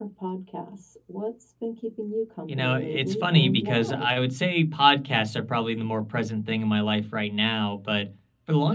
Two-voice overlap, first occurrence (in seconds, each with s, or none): 2.5 s